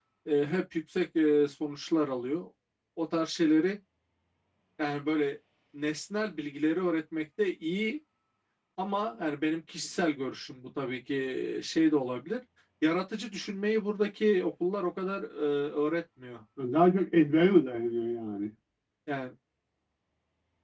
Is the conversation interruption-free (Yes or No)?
Yes